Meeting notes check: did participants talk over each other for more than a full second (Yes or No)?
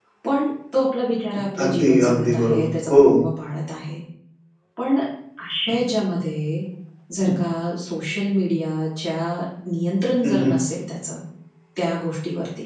Yes